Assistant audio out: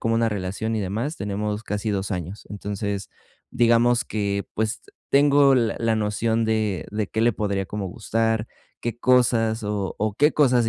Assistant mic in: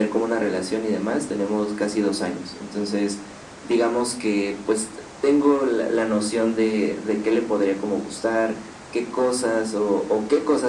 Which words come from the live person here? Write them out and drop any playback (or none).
none